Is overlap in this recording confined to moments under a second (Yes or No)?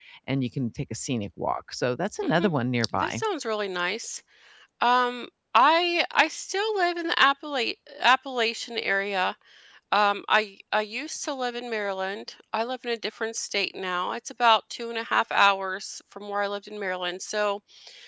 Yes